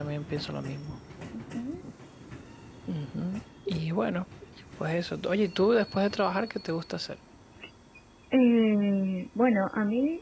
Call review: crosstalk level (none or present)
none